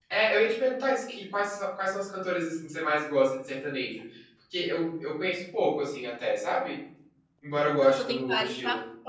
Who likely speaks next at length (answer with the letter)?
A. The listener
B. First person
A